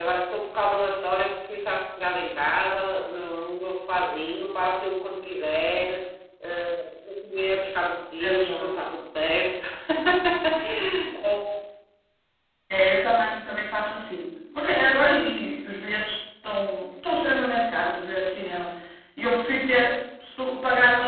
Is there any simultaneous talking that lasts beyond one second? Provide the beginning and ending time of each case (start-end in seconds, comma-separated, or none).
none